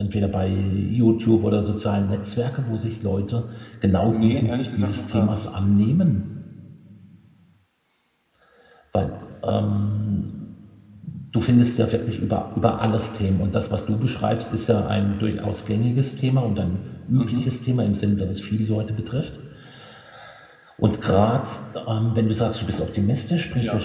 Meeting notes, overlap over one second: present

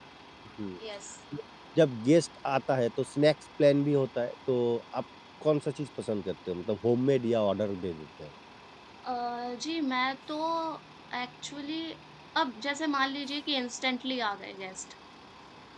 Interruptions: none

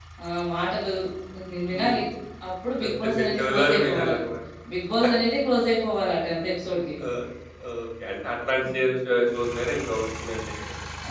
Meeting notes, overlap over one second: present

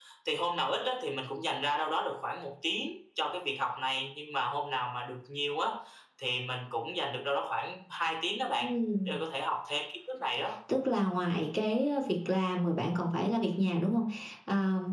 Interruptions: none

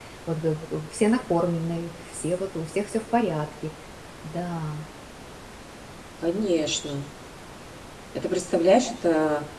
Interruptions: none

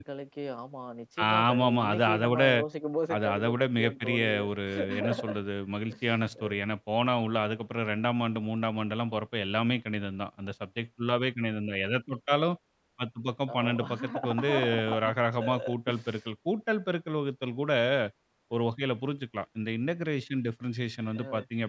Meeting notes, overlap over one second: present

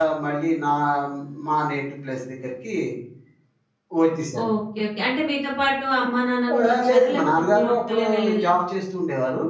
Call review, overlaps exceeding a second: present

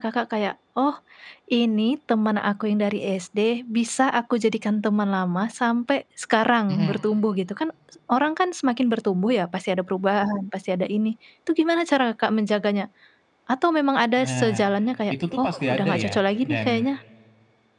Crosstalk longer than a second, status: present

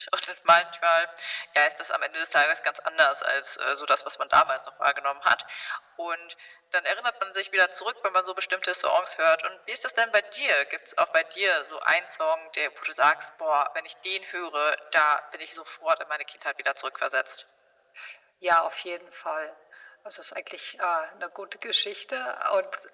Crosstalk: none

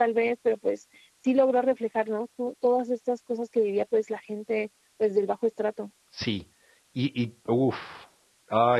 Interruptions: none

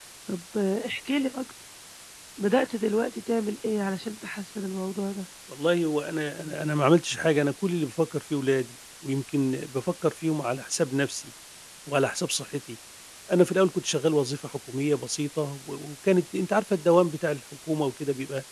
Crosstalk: none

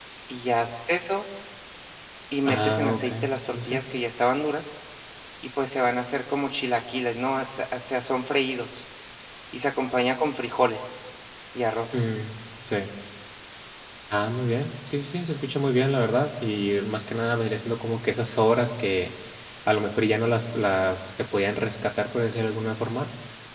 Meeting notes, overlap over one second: present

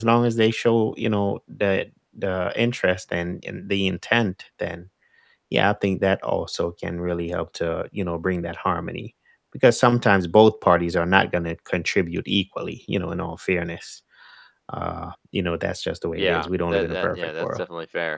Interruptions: present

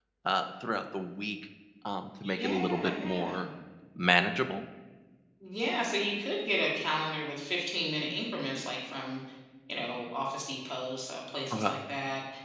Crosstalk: present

